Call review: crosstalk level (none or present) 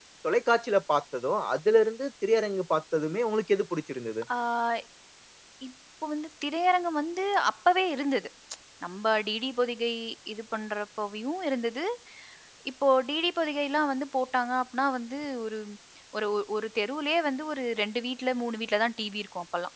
none